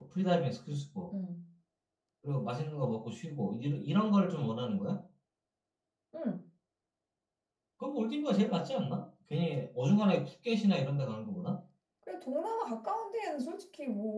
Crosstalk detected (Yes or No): No